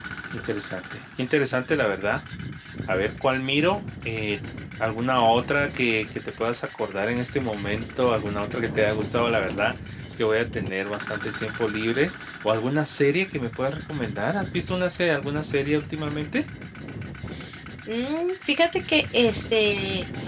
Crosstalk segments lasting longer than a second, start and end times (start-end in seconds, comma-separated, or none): none